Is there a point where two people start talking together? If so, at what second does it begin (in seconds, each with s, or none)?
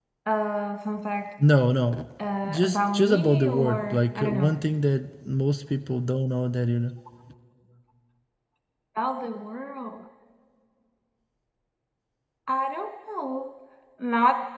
2.5 s